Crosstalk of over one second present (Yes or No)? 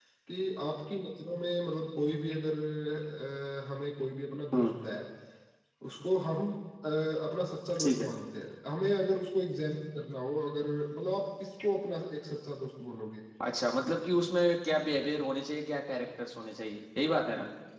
No